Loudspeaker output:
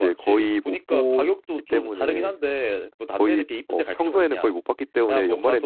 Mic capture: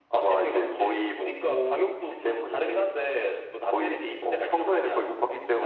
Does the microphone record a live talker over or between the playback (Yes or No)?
No